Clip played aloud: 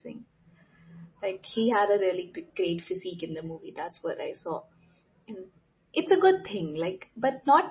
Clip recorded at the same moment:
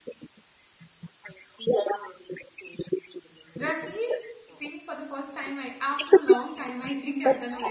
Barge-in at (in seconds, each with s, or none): 3.6 s